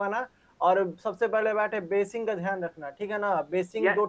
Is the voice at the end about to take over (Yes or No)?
Yes